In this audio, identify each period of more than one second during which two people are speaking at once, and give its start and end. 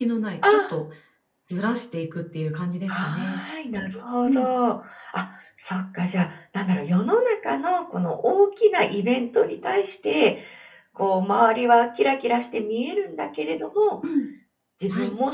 none

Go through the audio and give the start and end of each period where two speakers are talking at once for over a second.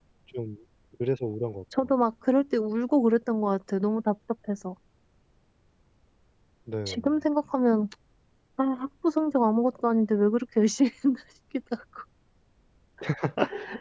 none

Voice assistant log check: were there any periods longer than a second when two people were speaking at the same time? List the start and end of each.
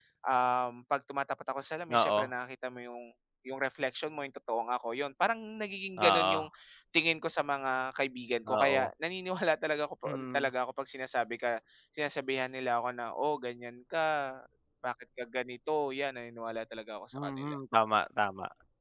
none

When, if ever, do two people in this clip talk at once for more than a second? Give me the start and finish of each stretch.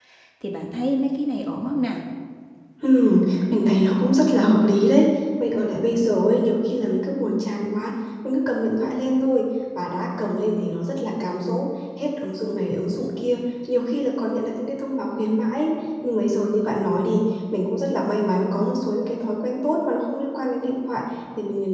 none

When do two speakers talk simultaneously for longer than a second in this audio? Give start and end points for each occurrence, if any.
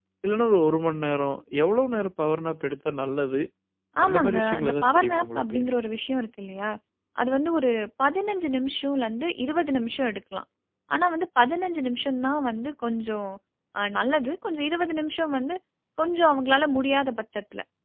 4.0-5.6

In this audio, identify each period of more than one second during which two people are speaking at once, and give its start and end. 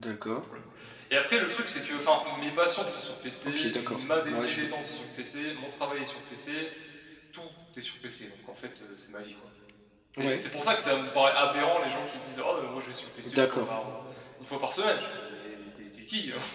3.4-4.7

